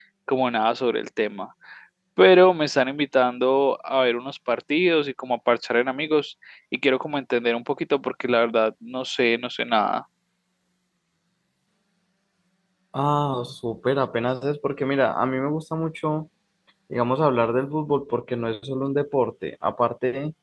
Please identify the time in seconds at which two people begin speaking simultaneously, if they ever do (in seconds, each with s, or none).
none